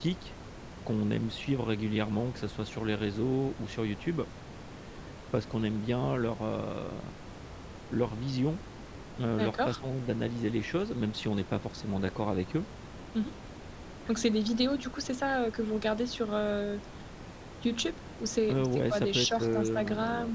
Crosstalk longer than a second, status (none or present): present